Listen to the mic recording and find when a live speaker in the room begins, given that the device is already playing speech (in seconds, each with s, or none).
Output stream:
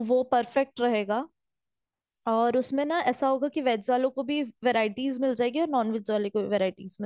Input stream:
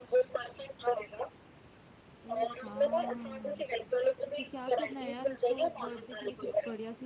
2.2 s